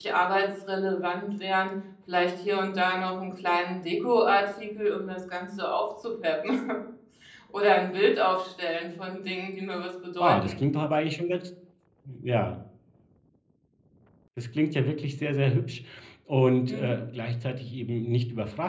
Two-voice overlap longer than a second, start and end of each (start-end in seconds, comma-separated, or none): none